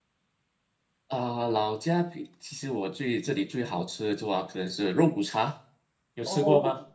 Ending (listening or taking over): taking over